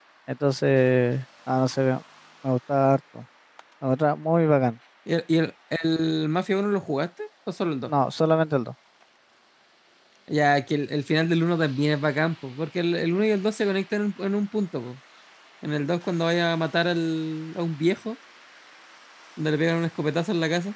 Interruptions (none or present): none